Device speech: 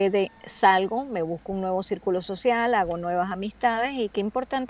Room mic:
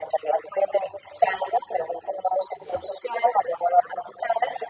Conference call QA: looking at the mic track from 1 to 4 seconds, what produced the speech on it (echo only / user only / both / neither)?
echo only